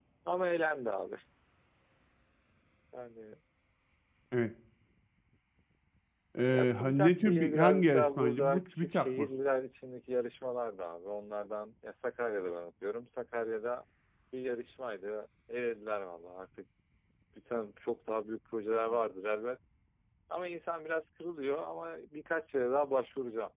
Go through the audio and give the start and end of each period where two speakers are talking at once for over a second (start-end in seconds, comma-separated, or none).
6.5-9.3